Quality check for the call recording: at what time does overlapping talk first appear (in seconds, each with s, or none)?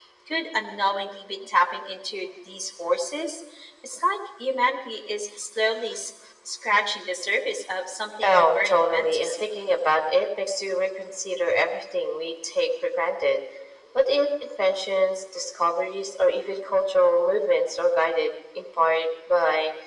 8.2 s